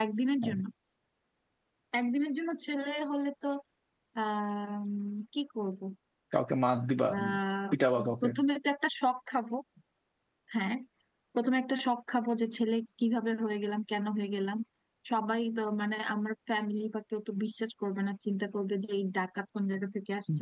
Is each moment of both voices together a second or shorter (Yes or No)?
Yes